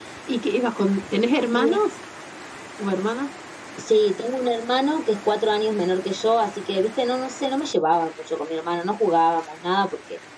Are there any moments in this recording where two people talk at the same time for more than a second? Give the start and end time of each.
none

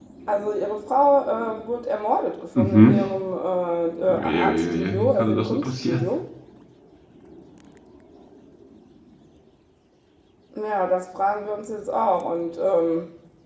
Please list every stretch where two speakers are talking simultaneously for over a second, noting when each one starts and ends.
4.1-6.0

